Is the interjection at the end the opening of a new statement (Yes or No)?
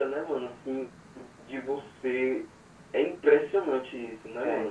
Yes